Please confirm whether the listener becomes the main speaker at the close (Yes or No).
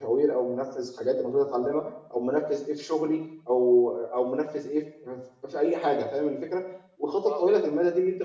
No